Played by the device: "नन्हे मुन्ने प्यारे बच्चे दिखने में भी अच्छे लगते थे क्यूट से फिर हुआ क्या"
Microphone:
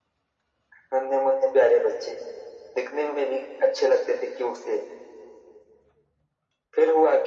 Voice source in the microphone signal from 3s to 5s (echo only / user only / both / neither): echo only